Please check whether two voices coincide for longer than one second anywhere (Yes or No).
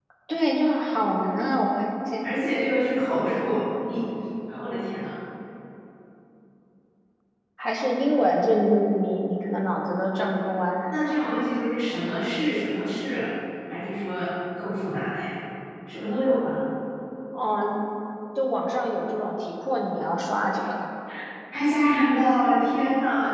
No